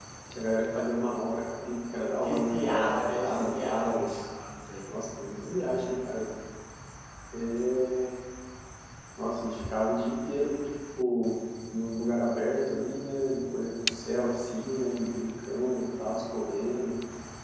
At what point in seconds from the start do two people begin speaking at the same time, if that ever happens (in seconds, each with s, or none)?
2.2 s